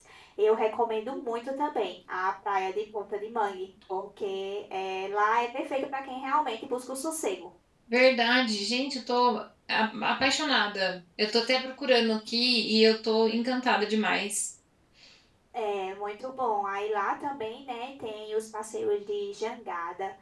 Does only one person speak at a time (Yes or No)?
Yes